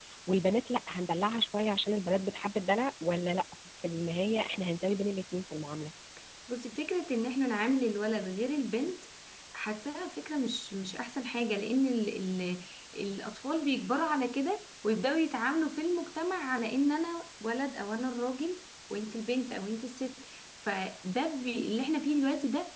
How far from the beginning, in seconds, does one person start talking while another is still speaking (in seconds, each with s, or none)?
none